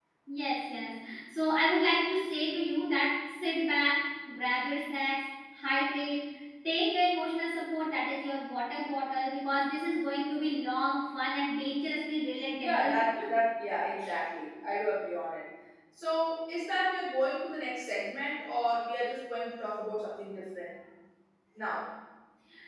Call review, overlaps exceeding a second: none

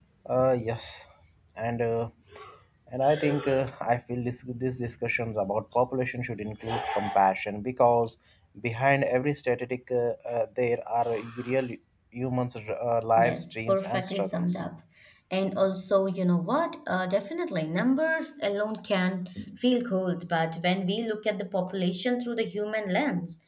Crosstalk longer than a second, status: present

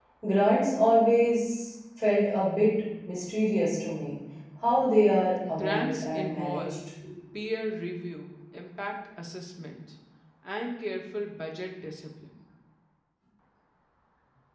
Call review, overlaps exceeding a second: present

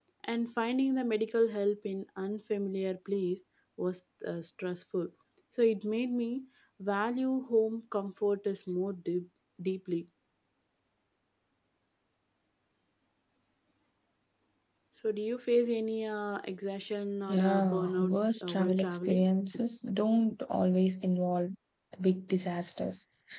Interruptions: present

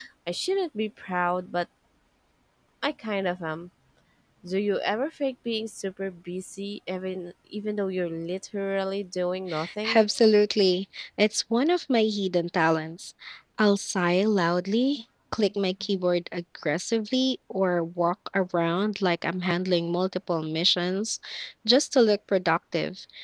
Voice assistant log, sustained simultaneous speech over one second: none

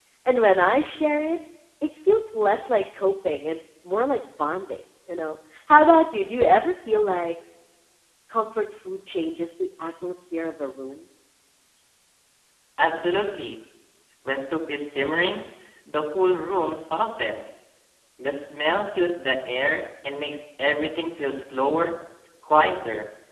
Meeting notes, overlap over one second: none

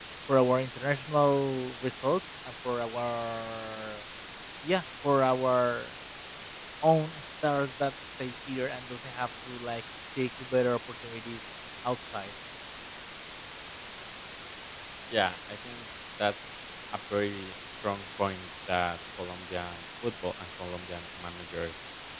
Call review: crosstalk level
none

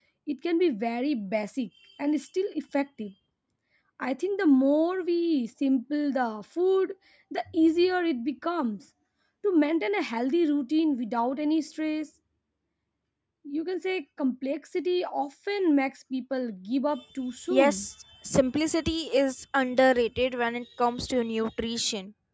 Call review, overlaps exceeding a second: none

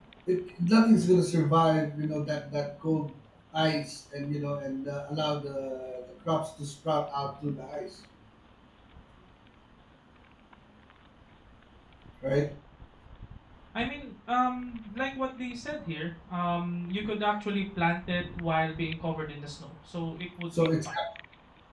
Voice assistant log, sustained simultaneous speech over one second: none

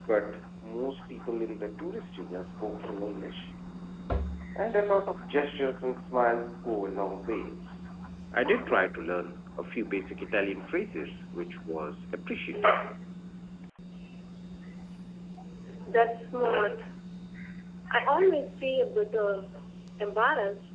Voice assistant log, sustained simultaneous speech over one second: none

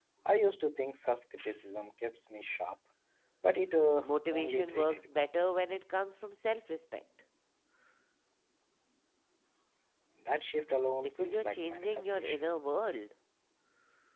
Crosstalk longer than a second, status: present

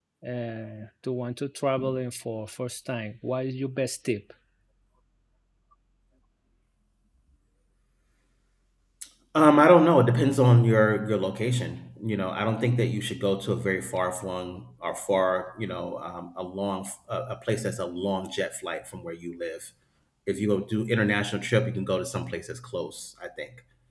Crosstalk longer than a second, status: none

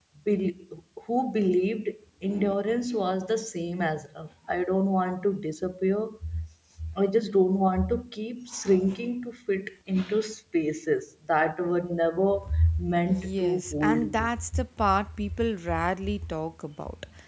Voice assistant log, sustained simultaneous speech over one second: present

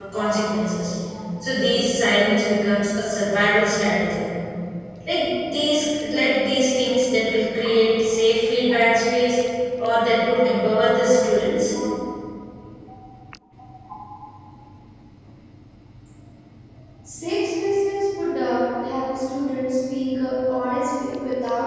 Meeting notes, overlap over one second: none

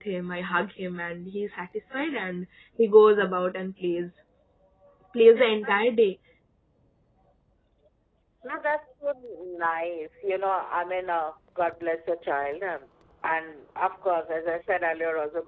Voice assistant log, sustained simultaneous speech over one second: none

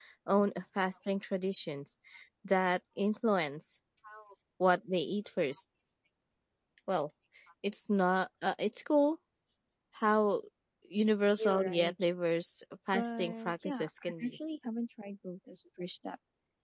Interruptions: present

